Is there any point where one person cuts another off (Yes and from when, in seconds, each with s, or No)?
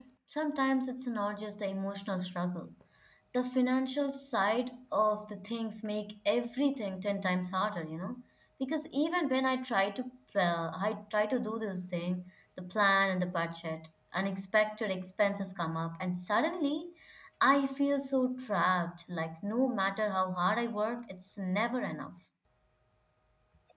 No